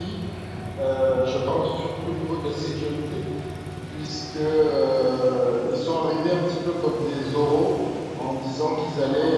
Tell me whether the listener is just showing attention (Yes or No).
Yes